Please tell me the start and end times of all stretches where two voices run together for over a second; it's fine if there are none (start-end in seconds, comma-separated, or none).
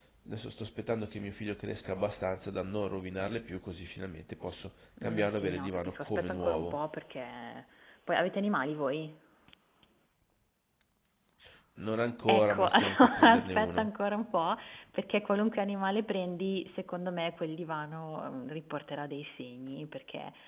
5.0-6.8, 12.3-13.9